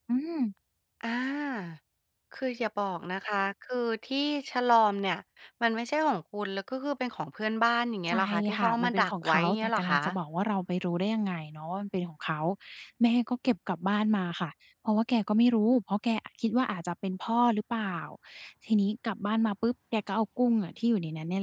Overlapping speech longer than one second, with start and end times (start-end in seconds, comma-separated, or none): 8.1-9.9